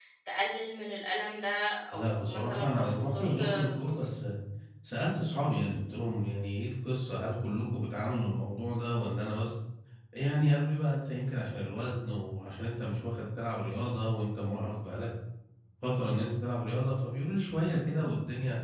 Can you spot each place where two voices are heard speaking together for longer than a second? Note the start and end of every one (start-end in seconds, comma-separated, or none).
1.9-4.0